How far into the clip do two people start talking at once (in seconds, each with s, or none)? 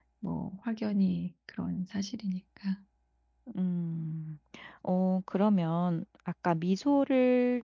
none